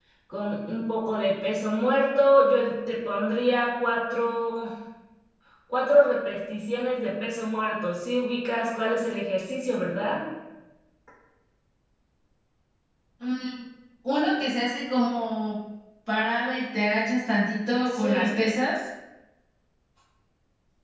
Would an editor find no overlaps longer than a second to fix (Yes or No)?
Yes